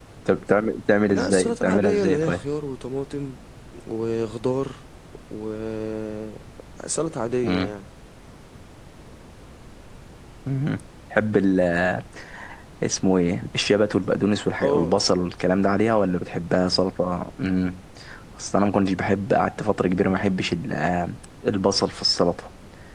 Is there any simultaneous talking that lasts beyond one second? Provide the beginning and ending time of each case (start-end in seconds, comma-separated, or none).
1.1-2.5